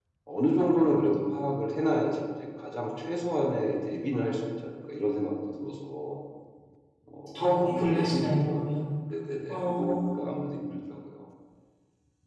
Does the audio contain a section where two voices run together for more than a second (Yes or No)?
Yes